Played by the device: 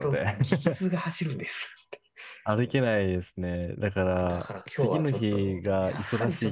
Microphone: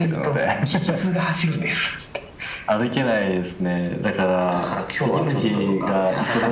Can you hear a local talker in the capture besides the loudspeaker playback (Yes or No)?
Yes